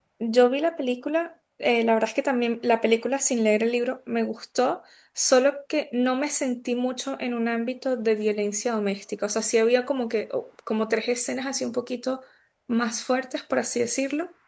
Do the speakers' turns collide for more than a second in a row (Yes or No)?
No